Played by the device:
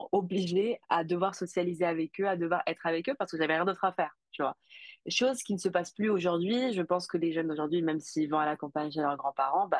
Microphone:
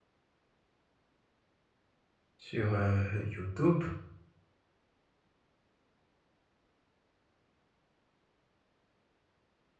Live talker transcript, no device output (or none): sur euh, YouTube